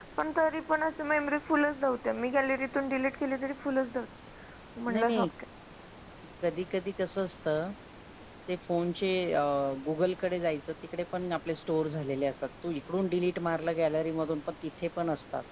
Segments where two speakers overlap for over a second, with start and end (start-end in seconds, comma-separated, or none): none